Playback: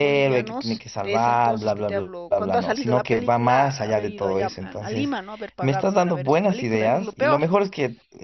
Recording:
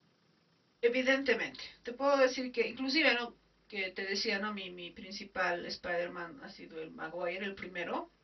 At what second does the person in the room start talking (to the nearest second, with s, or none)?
1 s